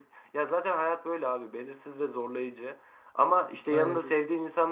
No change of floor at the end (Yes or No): Yes